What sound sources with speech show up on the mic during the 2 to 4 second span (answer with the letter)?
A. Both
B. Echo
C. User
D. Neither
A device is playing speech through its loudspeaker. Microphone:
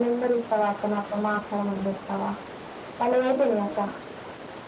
B